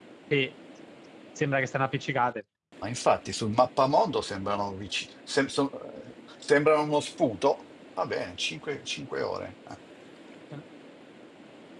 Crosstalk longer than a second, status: none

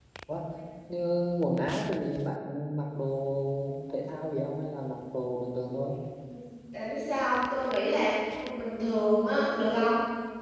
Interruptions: none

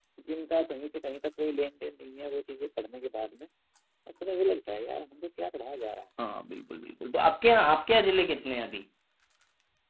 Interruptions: none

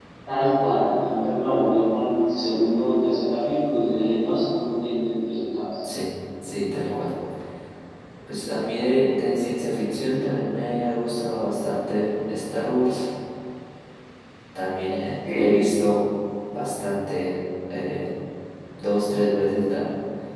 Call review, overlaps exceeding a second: none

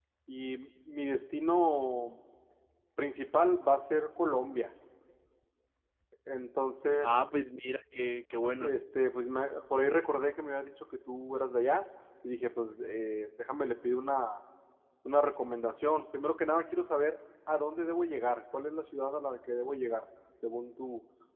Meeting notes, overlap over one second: none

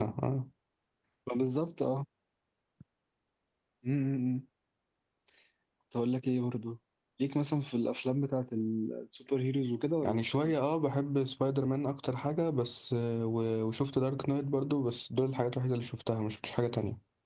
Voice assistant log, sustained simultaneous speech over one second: none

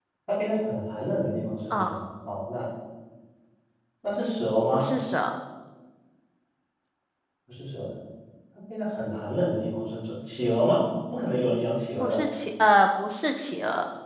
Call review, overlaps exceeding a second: none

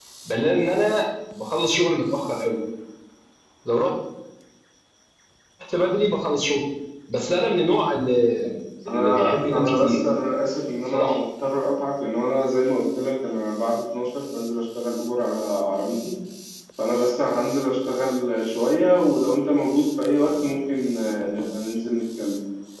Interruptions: present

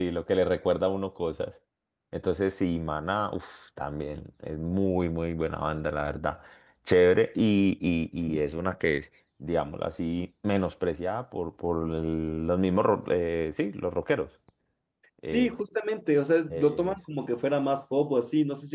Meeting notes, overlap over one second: none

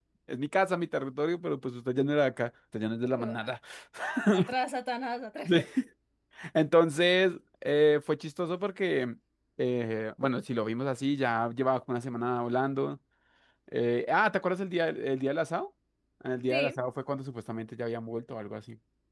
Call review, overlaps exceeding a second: none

